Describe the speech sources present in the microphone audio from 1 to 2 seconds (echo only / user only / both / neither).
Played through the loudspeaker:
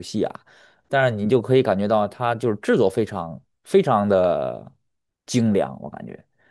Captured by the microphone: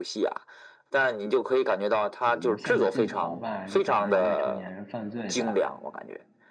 echo only